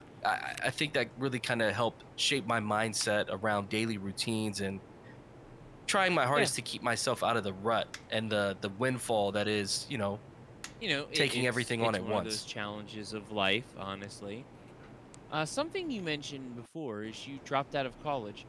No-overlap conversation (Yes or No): No